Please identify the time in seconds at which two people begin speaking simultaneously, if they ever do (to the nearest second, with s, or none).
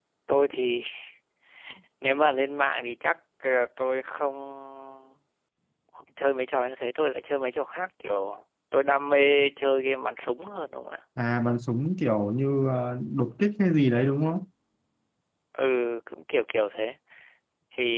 none